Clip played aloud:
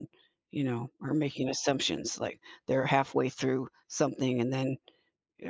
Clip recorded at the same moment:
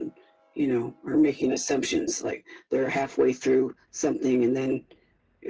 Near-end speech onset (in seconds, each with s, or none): none